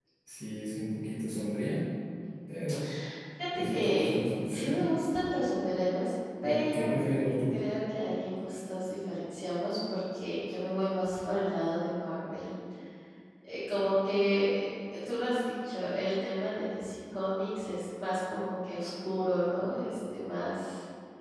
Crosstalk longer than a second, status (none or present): present